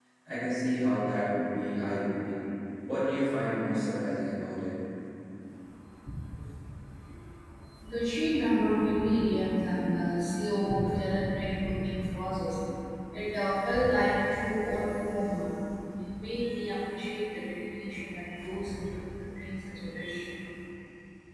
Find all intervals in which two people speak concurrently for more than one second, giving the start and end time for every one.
none

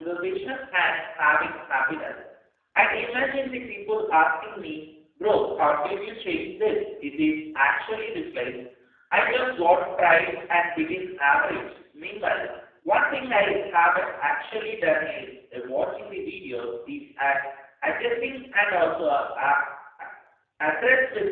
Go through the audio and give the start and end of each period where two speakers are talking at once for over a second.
none

